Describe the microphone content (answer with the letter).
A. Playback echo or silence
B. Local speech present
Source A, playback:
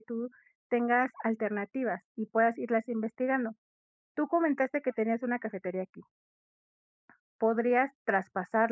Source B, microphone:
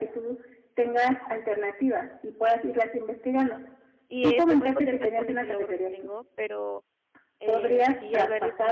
B